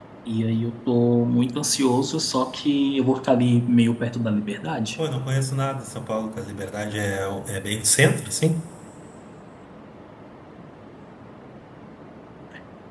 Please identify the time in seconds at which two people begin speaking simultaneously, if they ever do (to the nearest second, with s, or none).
none